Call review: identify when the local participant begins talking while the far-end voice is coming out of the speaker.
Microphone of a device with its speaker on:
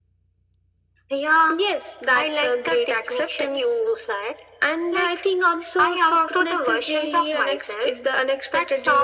none

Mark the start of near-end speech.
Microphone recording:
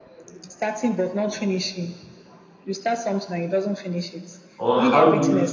5 s

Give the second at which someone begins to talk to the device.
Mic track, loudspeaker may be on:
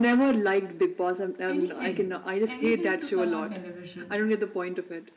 1 s

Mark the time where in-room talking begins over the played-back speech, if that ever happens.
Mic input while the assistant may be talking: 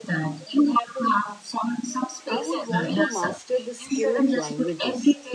2 s

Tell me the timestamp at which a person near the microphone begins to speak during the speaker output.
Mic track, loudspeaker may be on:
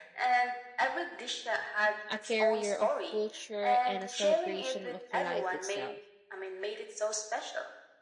2 s

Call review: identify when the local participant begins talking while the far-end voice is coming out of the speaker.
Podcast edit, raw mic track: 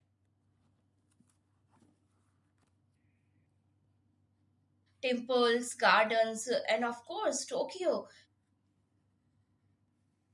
5 s

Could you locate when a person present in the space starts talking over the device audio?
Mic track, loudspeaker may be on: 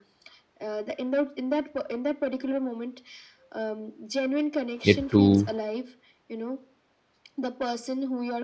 5 s

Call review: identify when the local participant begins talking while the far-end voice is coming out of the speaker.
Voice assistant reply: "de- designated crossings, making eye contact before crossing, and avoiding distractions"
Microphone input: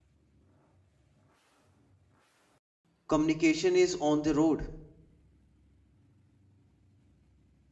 3 s

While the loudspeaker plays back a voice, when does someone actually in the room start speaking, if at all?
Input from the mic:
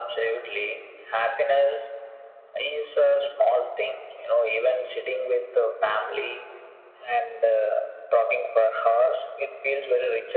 none

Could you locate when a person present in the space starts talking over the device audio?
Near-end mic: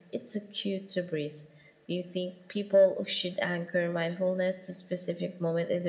none

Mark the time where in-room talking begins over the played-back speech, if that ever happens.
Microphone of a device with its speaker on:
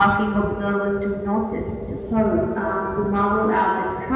none

